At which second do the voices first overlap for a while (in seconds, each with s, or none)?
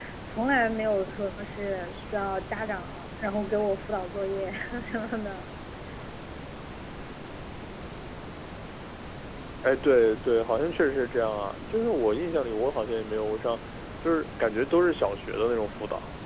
none